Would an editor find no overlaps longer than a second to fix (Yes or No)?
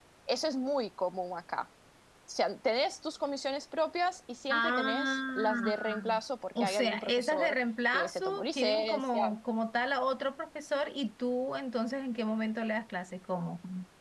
No